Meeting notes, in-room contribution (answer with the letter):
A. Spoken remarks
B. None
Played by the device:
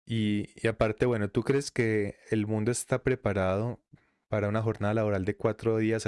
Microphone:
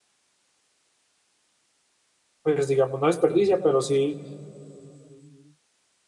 A